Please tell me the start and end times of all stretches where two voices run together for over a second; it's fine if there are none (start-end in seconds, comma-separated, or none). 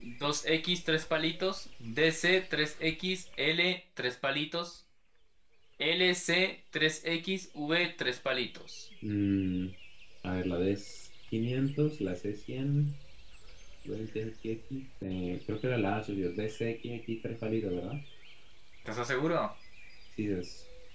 none